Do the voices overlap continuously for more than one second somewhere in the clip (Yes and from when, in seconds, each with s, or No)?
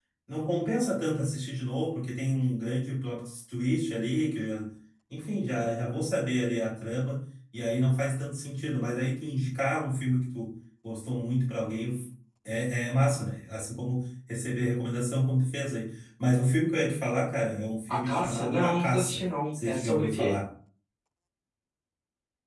Yes, from 17.9 s